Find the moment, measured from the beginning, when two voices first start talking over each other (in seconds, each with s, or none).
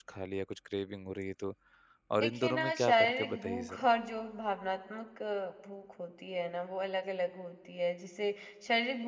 2.2 s